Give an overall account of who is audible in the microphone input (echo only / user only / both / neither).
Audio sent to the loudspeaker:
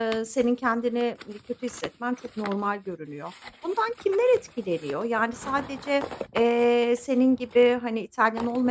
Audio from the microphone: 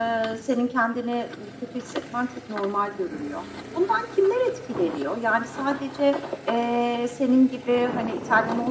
echo only